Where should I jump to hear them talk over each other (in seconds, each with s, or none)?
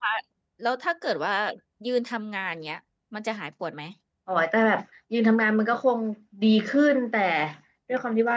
none